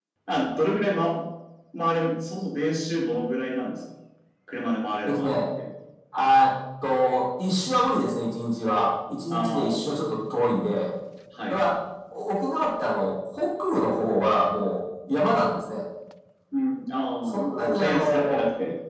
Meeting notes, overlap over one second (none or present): present